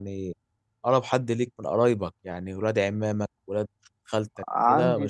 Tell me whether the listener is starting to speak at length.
Yes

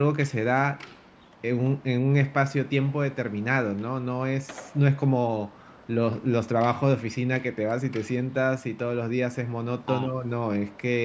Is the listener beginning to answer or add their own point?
No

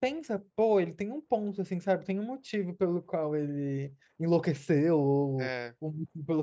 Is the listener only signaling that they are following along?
Yes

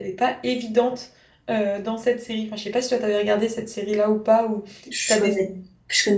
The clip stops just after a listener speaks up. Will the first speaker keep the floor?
No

